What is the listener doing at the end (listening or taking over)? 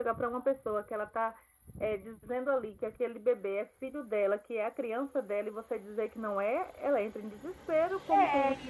taking over